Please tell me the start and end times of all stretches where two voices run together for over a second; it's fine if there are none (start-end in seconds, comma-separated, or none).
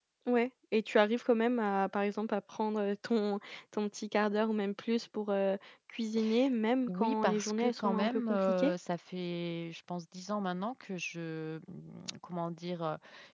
6.9-8.7